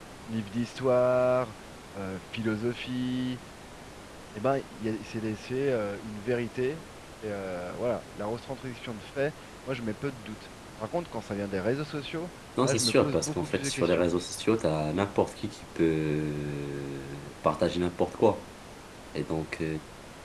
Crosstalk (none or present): present